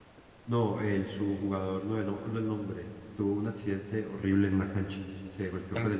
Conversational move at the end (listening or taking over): listening